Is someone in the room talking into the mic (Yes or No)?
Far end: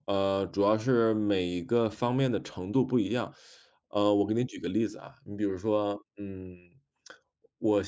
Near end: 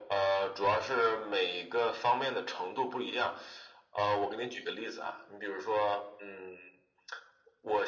No